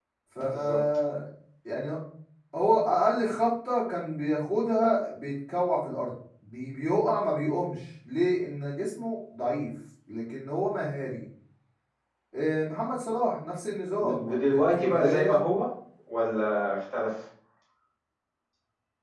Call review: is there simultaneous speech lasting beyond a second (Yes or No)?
Yes